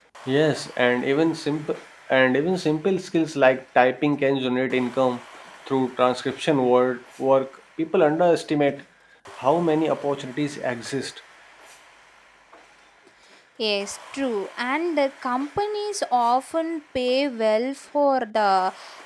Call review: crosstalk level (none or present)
none